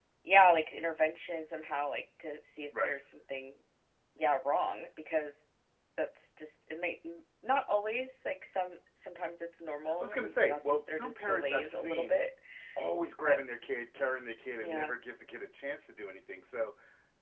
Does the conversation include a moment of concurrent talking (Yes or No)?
Yes